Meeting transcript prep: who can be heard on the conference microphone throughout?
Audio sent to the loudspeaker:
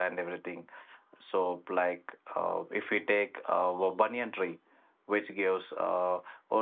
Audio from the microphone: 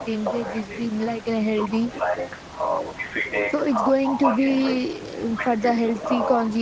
both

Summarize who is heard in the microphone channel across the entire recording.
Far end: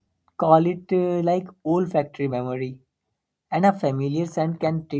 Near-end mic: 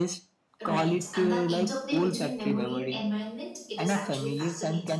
both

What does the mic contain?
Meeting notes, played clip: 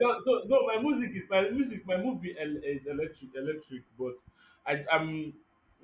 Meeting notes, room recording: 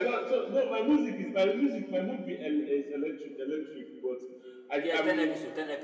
both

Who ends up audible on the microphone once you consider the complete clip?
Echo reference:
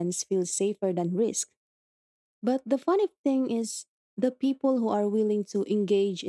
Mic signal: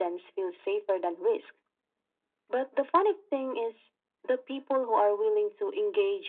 echo only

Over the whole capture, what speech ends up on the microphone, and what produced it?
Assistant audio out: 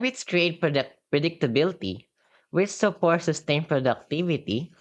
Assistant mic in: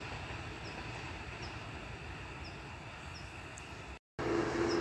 neither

